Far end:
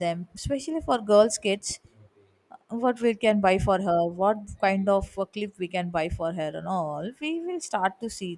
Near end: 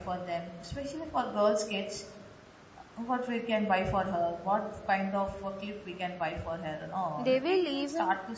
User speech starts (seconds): 7.2 s

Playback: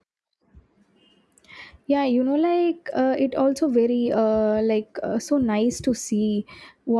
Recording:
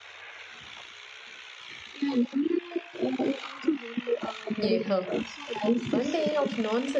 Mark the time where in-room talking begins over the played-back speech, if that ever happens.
4.5 s

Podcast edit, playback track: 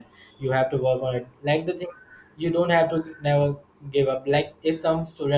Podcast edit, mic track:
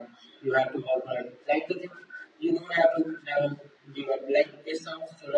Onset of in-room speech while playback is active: none

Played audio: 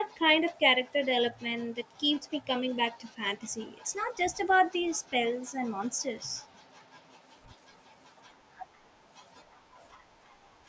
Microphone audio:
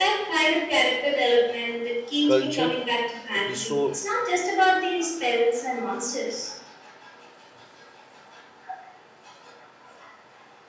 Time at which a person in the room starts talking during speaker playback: 2.2 s

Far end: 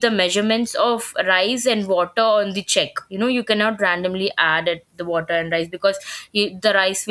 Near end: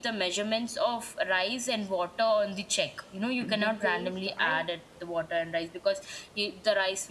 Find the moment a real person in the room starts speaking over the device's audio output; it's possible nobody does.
3.4 s

